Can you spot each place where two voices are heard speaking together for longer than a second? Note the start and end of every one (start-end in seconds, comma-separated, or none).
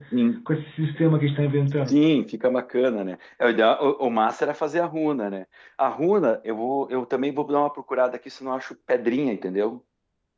none